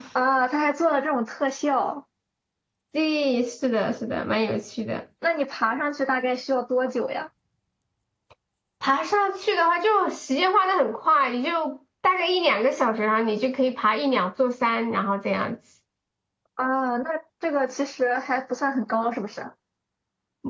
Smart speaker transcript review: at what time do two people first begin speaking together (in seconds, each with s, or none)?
none